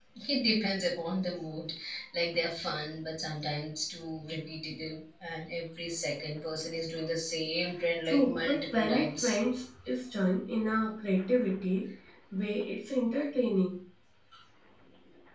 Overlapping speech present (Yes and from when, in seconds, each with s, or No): Yes, from 8.0 s